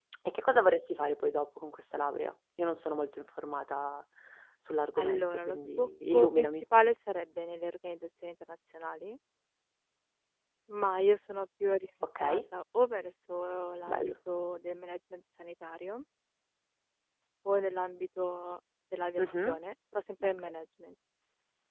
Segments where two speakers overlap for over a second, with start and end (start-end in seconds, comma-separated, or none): 5.0-6.6